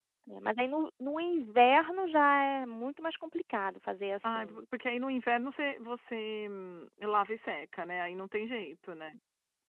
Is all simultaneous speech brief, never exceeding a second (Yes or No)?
Yes